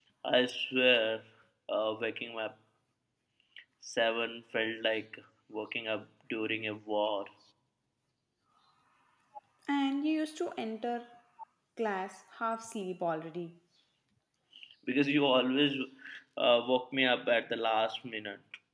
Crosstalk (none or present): none